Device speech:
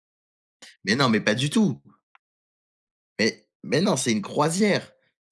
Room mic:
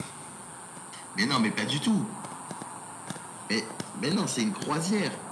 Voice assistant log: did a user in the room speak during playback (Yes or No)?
No